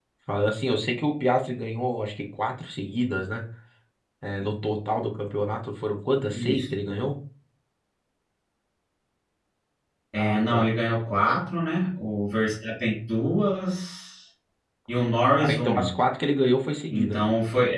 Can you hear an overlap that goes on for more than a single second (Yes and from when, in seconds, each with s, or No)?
No